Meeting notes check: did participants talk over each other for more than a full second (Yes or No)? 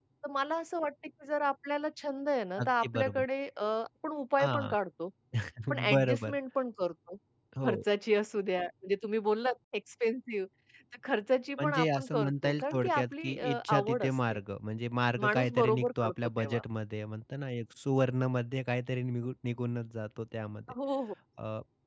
Yes